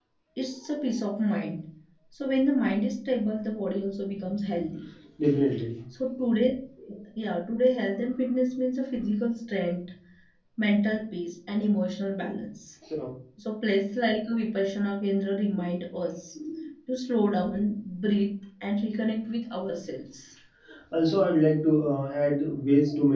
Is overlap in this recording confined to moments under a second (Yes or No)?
Yes